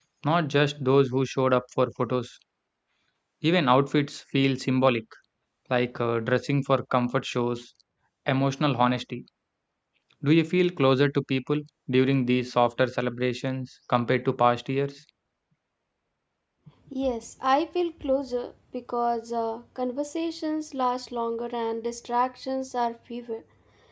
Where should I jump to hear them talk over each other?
none

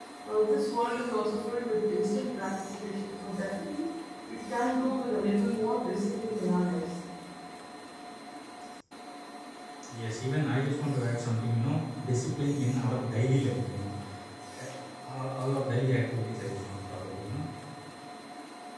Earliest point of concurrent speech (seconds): none

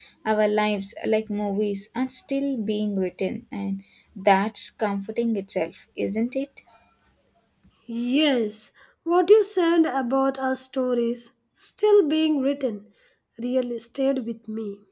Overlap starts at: none

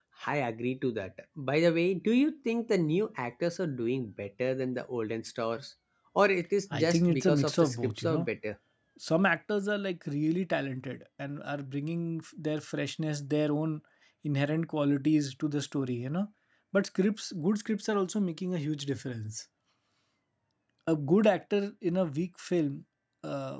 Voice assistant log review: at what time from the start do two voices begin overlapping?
6.8 s

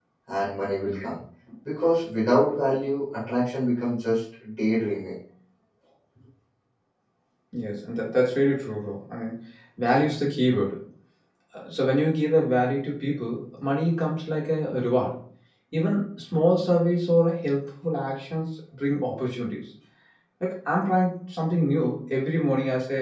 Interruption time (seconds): none

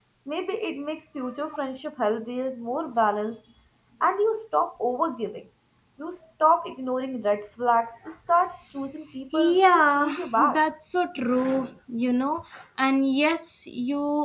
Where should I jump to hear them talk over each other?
9.3 s

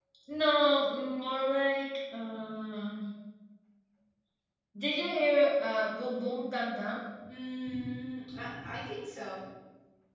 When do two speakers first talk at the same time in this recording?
none

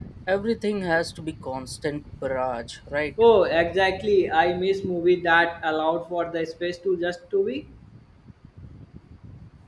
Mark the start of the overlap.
none

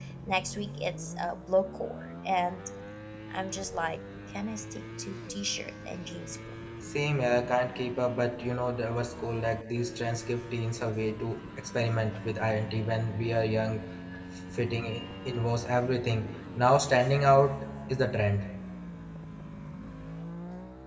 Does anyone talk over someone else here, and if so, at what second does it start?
none

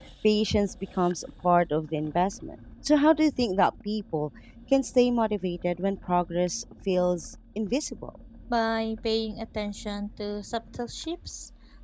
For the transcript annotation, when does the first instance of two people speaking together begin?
none

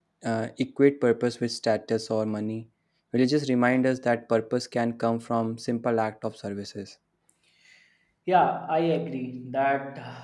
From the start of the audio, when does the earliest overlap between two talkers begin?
none

